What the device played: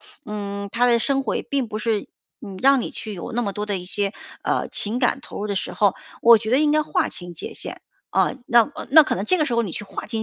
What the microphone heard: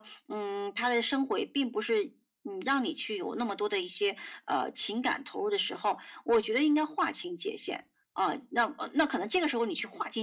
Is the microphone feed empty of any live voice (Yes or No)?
Yes